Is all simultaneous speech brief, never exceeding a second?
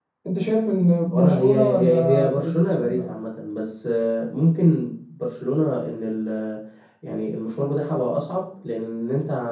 No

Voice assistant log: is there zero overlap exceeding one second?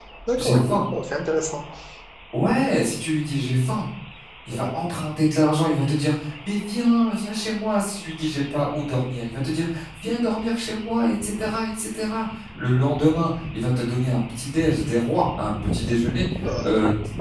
Yes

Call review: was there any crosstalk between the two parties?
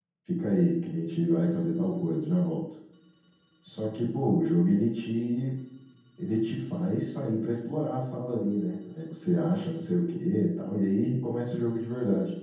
No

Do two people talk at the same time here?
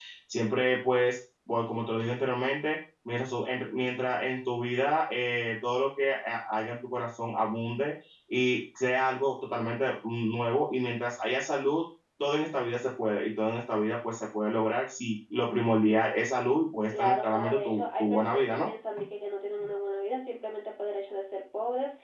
Yes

